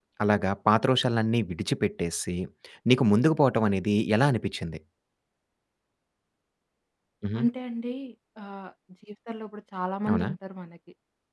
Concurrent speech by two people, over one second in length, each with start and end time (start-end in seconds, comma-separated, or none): none